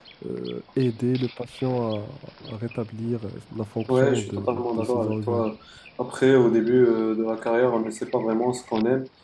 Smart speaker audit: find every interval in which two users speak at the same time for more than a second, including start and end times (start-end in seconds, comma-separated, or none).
3.9-5.4